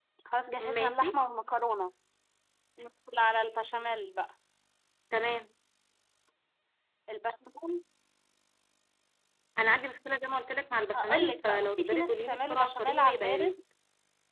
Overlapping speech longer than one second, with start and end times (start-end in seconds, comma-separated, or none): 10.9-13.5